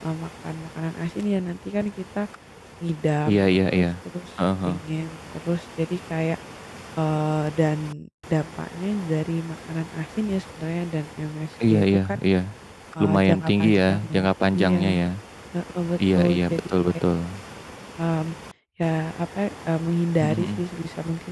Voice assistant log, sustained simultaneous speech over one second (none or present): present